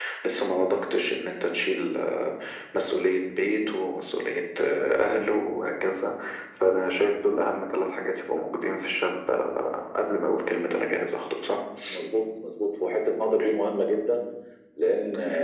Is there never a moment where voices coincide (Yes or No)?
Yes